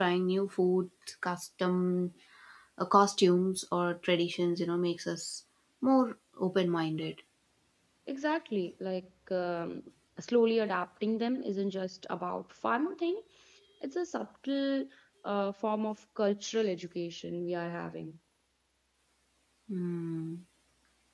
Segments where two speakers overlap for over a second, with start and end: none

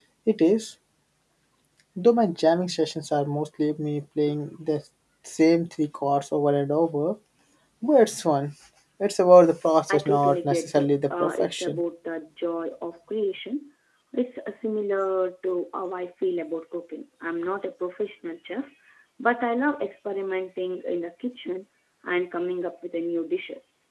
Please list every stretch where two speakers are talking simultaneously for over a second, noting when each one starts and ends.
9.9-11.8

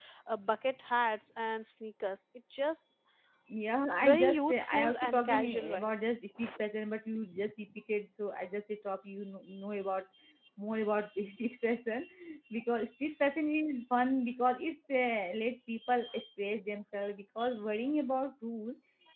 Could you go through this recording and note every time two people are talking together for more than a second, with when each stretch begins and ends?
4.0-5.9

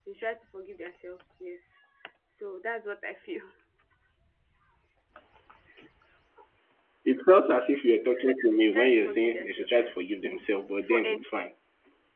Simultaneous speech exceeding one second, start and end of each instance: 8.5-10.0

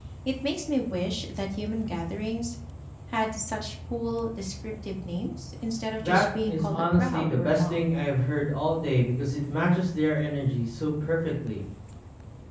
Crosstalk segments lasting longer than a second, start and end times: 6.0-7.8

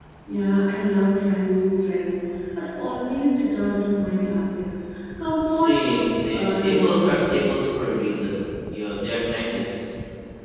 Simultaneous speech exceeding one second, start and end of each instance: 5.5-7.3

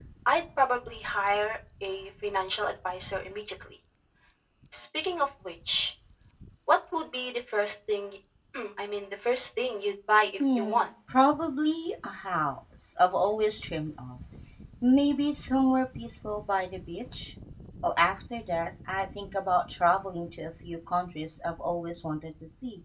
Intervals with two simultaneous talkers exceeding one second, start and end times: none

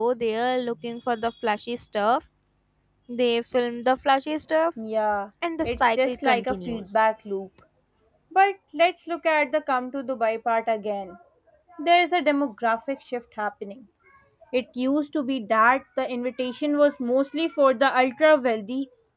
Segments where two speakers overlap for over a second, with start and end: 5.6-6.9

